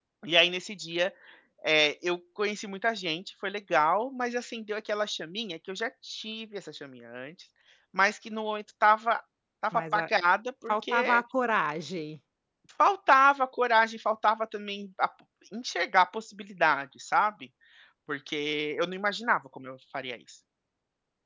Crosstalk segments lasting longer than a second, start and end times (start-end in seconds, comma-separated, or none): none